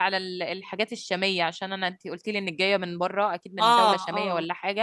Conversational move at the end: listening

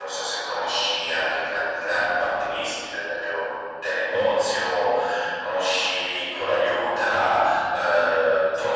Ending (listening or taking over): taking over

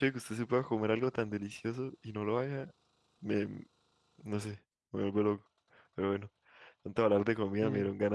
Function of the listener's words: listening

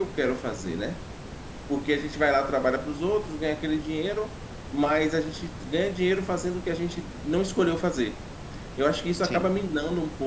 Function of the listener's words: listening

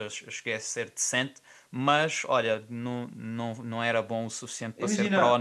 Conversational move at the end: taking over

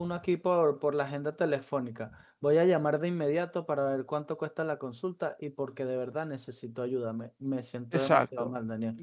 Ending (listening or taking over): taking over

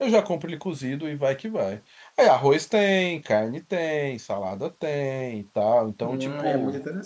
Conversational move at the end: taking over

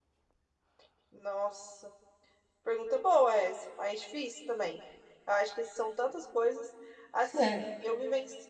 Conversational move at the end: listening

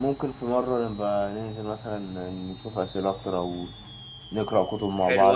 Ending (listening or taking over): taking over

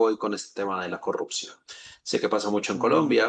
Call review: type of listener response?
listening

